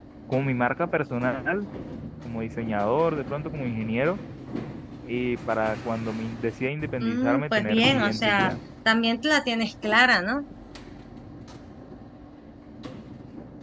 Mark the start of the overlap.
7.0 s

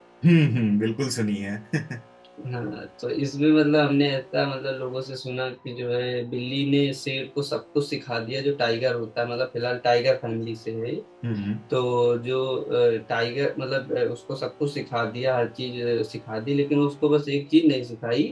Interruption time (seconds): none

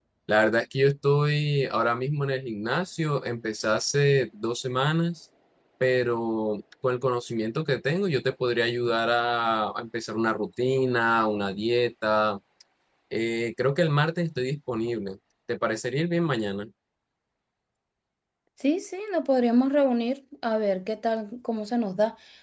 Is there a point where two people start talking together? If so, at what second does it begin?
none

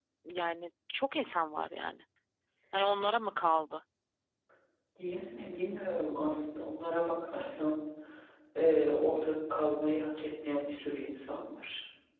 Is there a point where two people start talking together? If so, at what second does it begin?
none

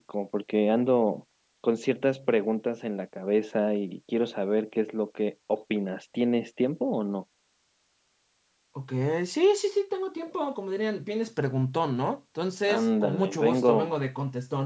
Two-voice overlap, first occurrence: 12.7 s

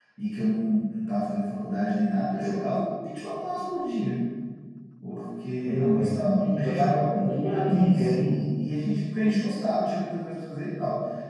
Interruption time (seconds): 5.6 s

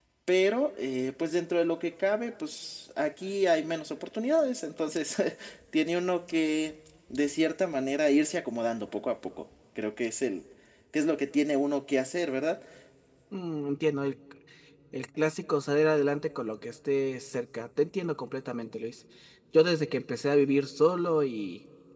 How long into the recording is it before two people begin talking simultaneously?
none

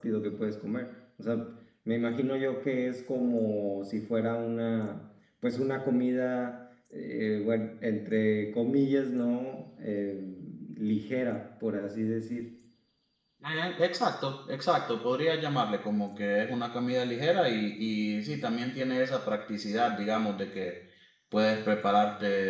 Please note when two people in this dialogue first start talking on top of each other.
none

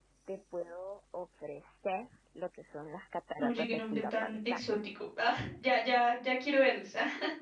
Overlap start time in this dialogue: 3.4 s

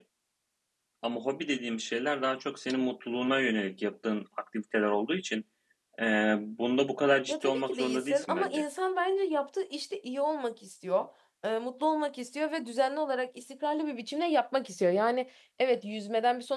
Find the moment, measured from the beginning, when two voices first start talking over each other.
7.3 s

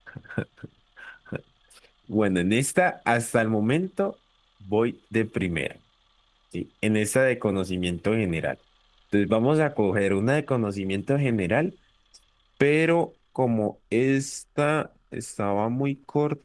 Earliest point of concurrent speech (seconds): none

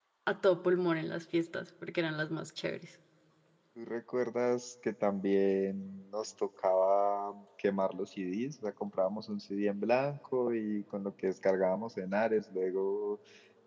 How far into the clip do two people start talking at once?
none

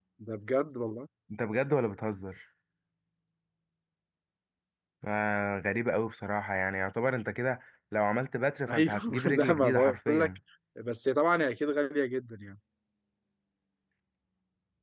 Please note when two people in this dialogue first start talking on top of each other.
8.7 s

